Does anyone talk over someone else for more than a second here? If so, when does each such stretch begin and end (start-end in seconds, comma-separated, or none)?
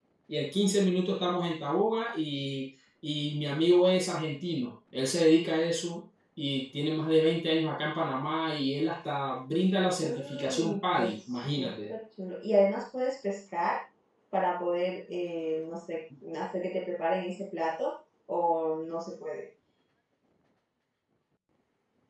10.0-11.7